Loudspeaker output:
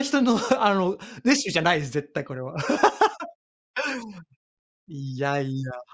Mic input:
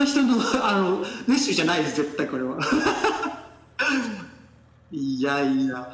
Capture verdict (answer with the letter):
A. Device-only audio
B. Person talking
A